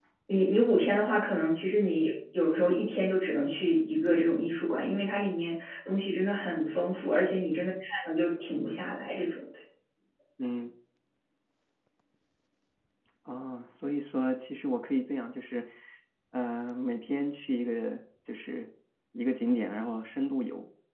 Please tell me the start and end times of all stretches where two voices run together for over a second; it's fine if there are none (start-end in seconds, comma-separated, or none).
none